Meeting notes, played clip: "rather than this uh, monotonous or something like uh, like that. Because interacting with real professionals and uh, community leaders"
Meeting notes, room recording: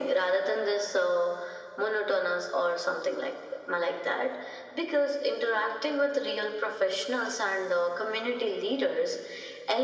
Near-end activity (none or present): none